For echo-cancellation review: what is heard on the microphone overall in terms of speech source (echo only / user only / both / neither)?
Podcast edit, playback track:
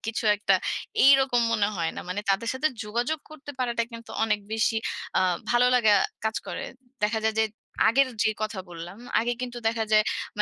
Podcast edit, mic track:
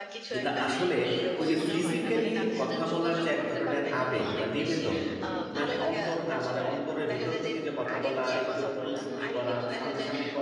both